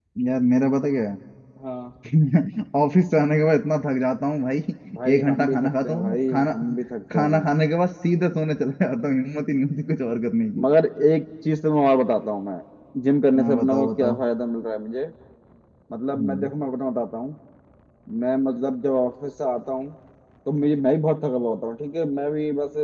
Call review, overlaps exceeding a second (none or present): present